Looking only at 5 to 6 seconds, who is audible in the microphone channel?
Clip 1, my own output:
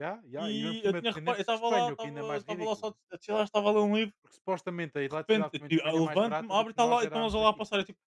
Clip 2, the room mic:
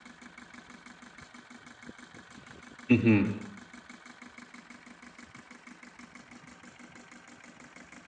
neither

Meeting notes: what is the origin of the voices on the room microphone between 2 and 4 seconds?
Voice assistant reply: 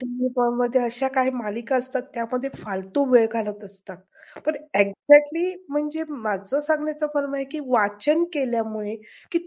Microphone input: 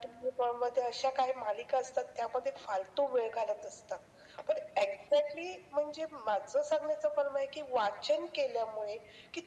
echo only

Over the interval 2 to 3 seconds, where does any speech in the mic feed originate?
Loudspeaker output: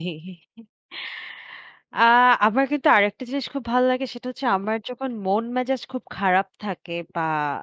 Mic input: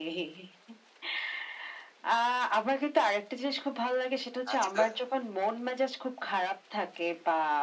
echo only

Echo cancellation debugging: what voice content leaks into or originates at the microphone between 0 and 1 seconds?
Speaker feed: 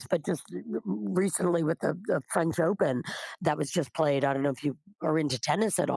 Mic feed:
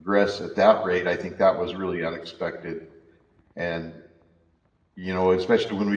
user only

